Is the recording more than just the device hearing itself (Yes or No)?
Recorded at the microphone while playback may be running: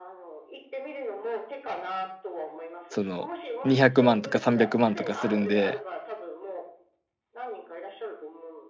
Yes